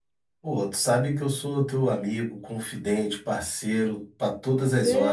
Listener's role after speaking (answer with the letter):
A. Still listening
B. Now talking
B